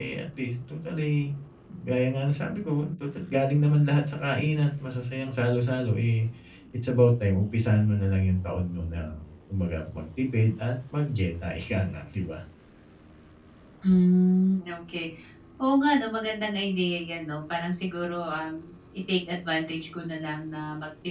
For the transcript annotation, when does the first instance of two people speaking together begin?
none

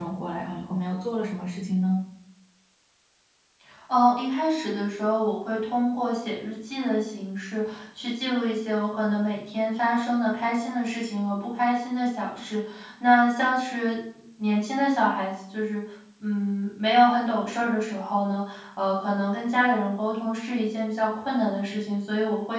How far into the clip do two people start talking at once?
none

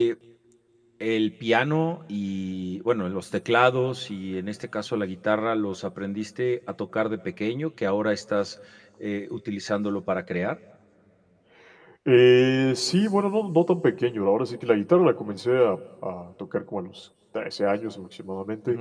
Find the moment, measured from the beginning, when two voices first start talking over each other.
none

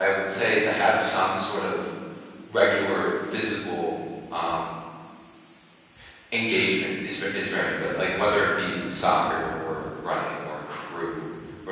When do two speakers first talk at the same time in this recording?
none

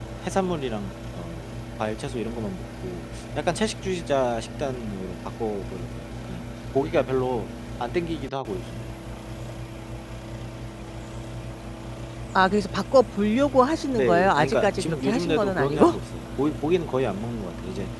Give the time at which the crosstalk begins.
13.9 s

